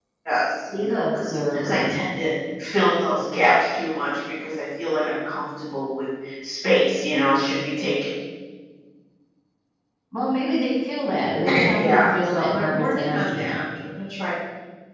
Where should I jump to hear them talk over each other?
0.7 s

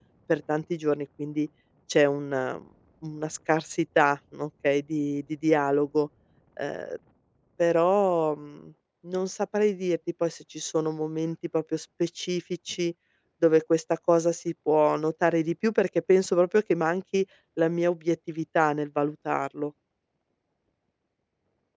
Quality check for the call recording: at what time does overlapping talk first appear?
none

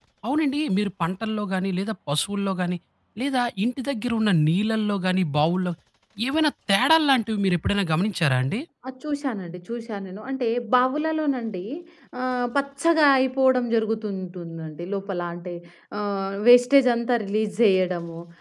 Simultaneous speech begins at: none

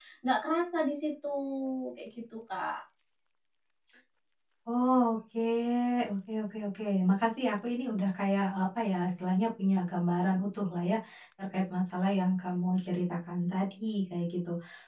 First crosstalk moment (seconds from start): none

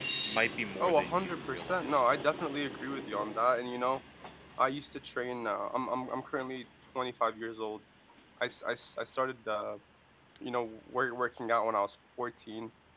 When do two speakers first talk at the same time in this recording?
0.8 s

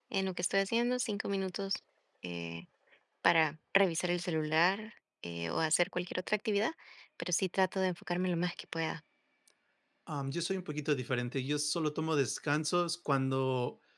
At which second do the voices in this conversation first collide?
none

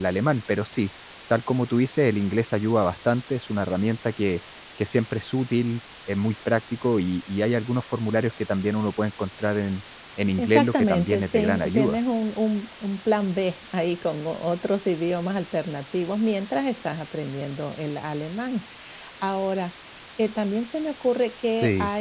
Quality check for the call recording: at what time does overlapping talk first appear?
10.4 s

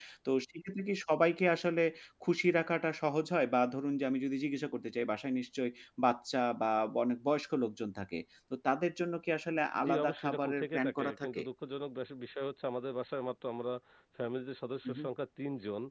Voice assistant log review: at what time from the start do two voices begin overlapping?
9.8 s

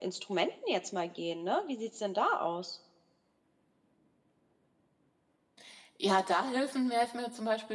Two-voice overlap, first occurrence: none

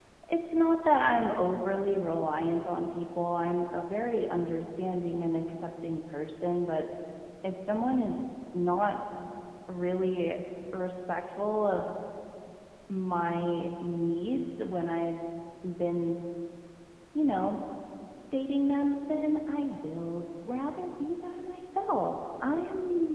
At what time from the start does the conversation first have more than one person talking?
none

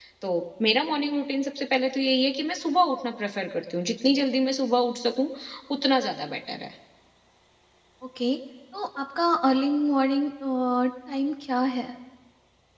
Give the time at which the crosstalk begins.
none

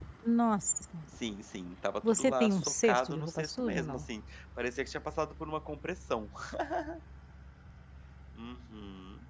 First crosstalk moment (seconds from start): 2.0 s

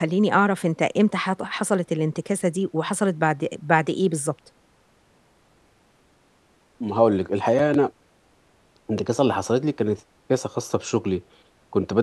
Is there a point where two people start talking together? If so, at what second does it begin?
none

